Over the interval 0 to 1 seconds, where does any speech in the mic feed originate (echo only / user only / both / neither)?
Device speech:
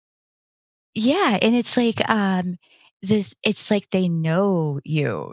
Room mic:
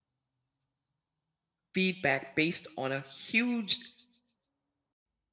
neither